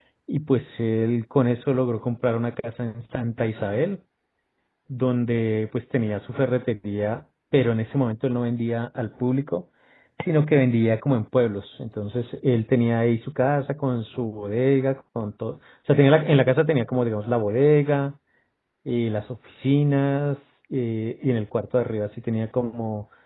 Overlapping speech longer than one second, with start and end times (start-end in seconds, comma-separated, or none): none